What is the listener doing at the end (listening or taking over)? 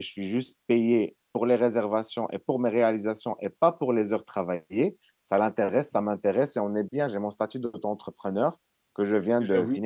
listening